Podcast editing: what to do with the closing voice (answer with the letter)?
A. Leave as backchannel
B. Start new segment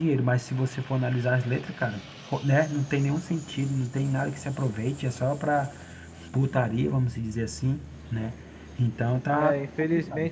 B